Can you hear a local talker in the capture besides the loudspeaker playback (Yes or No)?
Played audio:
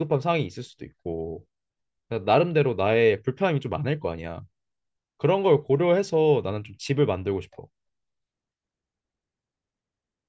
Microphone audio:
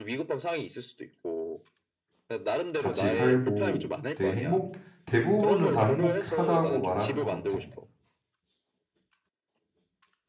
Yes